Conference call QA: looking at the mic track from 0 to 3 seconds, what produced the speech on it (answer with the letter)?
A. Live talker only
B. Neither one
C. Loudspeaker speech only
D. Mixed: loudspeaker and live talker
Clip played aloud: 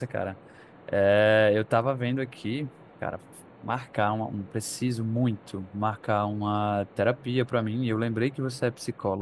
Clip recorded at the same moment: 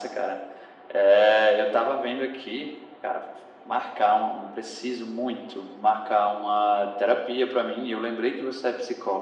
C